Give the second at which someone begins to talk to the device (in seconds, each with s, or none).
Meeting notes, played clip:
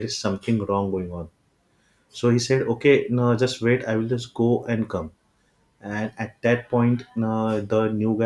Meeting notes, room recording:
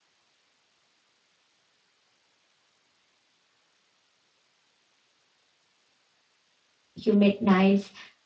7.0 s